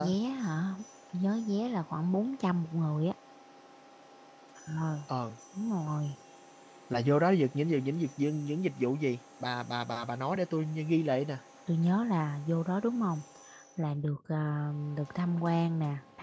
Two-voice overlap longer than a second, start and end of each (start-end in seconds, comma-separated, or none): none